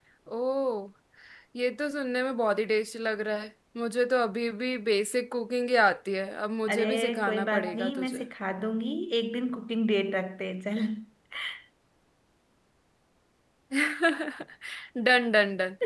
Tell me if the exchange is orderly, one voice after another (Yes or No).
No